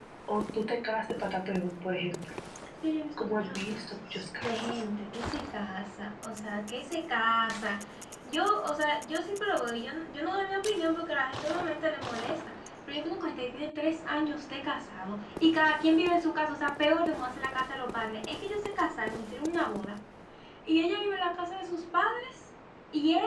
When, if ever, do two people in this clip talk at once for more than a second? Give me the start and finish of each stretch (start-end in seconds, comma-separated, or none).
3.2-4.8